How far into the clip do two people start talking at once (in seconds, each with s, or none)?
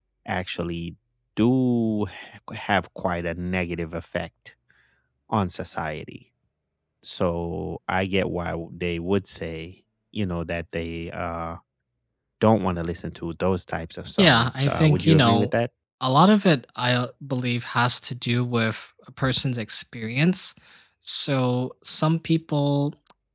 14.2 s